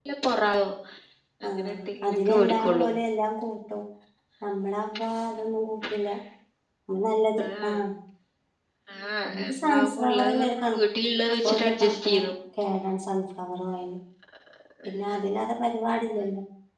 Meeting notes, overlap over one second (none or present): present